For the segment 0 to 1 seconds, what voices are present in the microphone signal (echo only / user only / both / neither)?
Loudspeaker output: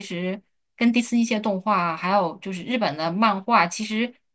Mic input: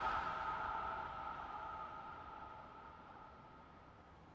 neither